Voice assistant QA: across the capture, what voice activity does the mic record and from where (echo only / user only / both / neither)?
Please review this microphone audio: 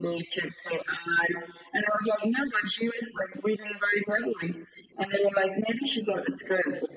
echo only